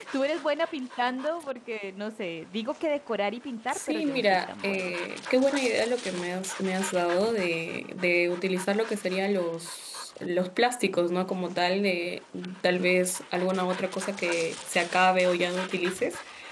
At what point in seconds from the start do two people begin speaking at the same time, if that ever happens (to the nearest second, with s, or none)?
4 s